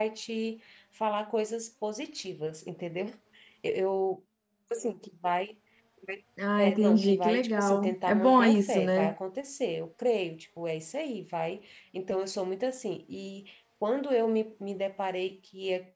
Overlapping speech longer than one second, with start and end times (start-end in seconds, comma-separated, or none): 6.6-9.1